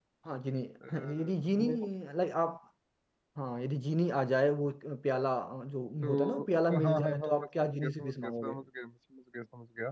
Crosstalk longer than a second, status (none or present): present